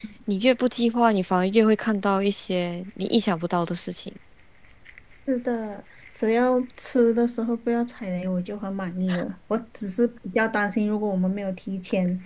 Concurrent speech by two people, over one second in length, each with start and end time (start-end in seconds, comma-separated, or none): none